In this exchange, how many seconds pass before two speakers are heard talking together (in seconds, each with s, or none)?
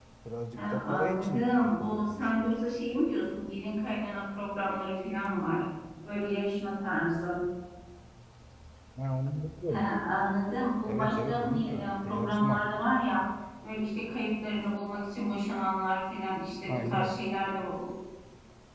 0.6 s